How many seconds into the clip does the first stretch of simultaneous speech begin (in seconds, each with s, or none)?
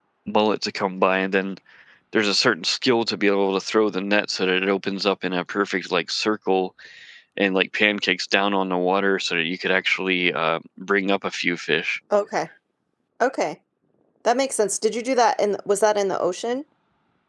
none